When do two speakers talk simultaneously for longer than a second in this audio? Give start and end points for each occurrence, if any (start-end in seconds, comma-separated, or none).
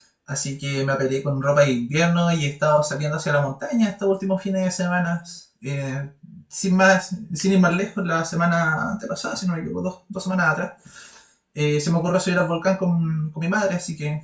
none